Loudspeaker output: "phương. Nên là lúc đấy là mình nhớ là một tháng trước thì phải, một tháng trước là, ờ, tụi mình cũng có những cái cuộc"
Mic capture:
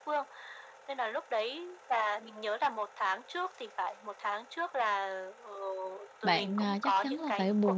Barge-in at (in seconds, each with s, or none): 6.2 s